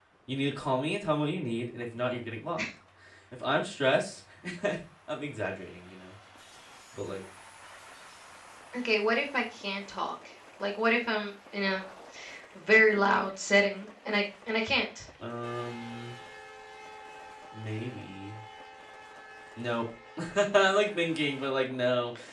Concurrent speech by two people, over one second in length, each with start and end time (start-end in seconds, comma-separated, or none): none